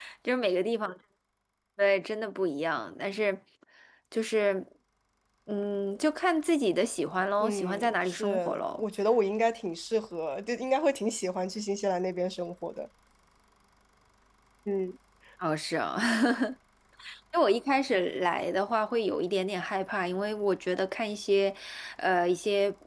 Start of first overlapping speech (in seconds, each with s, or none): 7.4 s